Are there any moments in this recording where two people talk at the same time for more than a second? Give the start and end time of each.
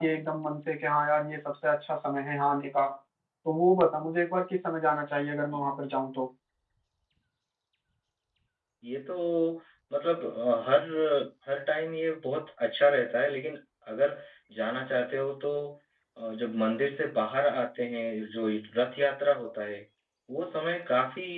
none

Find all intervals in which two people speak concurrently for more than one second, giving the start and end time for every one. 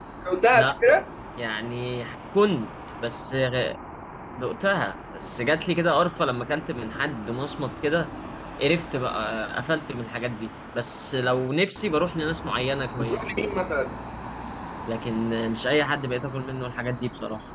none

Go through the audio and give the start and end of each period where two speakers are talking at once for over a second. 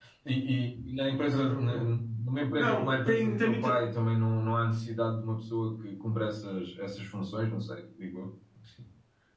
2.6-3.8

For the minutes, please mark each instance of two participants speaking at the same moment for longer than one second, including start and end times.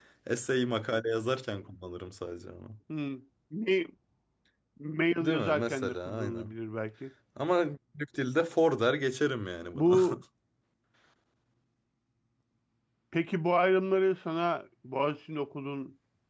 5.2-6.5

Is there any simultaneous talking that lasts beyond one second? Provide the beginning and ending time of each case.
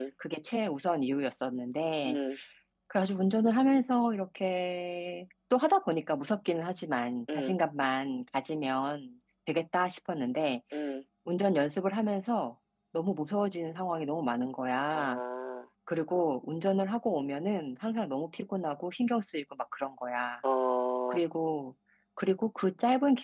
none

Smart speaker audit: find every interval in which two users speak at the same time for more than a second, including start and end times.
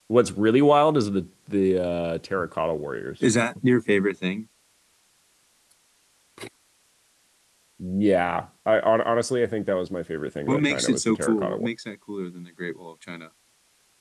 10.5-11.7

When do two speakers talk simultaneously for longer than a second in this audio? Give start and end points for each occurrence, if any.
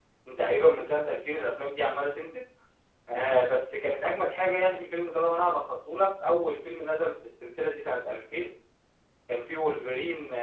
none

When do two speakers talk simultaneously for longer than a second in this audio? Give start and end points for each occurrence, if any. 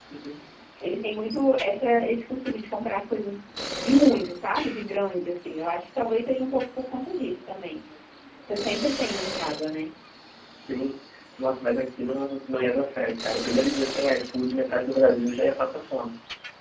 none

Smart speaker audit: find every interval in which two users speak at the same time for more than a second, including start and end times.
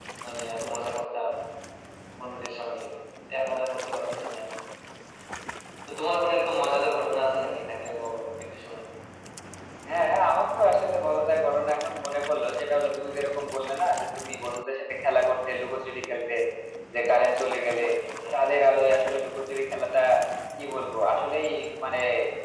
none

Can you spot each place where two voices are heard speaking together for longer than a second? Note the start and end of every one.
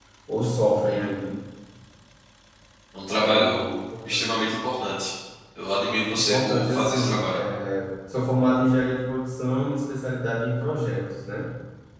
5.9-7.4

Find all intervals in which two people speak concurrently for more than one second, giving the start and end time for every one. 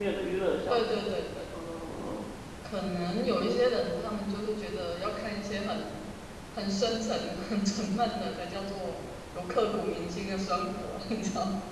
none

